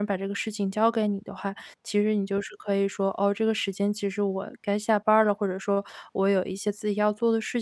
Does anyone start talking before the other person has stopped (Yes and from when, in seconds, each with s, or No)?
No